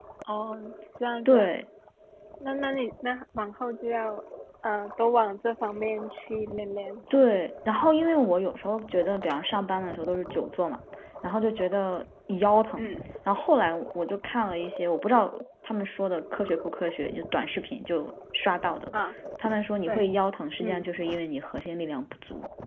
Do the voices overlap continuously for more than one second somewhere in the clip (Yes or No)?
No